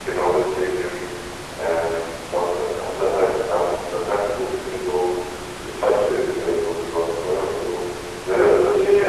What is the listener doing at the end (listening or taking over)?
taking over